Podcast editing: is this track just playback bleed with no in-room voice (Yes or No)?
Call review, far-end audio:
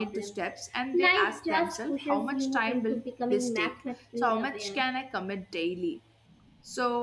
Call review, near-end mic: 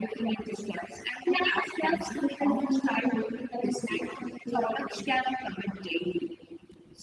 Yes